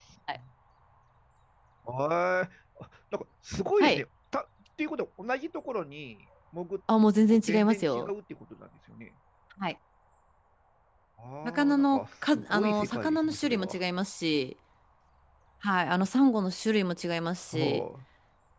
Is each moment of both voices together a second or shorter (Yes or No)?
No